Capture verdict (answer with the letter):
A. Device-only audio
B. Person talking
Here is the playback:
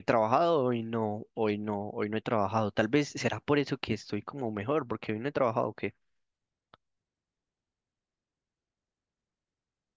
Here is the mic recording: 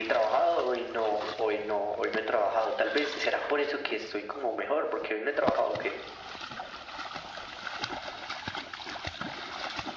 A